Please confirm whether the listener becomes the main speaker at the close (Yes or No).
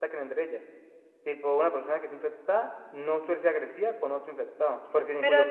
Yes